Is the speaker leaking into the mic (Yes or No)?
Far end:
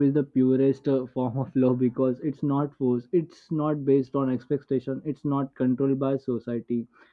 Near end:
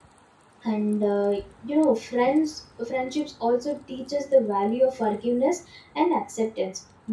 No